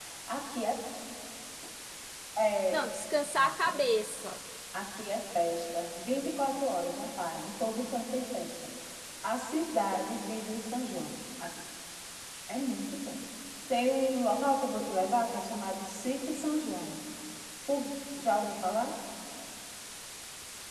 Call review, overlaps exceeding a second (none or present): none